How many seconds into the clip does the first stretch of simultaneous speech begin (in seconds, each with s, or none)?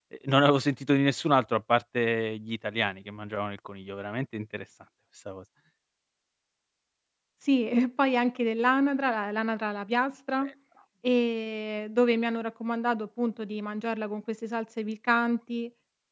none